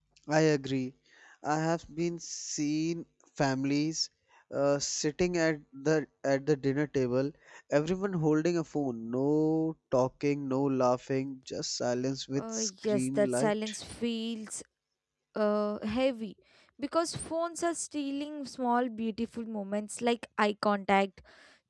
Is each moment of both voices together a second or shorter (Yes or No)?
No